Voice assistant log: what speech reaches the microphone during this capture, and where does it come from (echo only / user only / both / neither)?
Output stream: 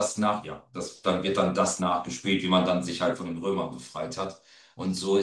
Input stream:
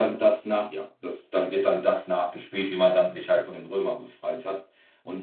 echo only